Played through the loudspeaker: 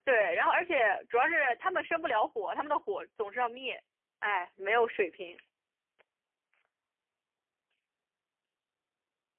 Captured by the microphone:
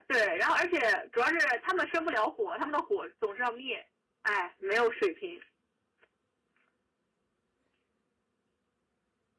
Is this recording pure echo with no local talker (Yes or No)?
Yes